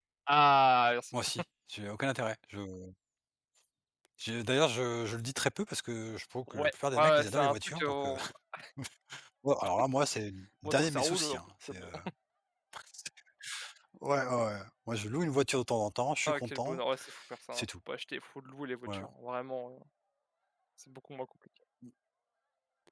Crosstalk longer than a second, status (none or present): present